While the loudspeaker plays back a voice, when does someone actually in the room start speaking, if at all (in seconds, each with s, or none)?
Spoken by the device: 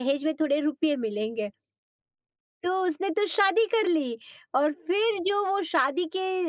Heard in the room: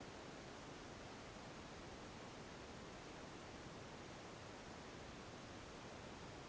none